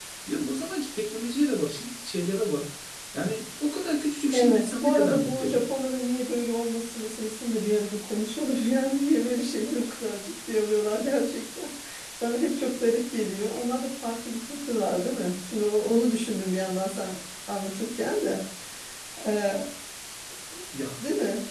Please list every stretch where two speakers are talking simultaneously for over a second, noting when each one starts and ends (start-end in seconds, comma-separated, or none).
4.3-5.6